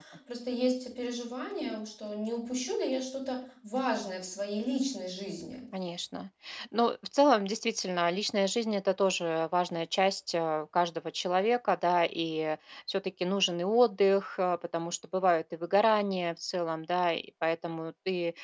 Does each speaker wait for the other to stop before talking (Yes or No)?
Yes